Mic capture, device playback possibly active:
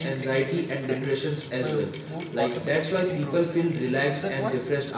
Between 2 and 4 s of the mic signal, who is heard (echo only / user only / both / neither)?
both